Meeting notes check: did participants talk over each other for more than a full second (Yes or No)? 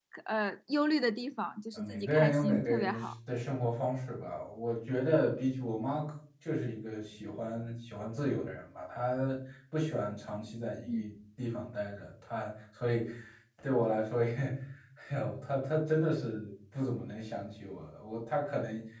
Yes